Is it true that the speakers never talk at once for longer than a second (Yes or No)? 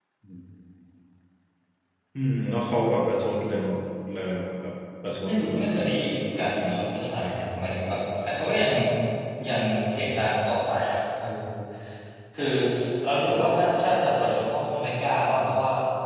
No